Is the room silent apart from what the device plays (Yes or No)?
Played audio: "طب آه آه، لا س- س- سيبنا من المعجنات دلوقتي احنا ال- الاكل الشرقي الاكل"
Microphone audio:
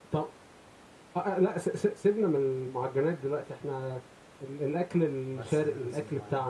No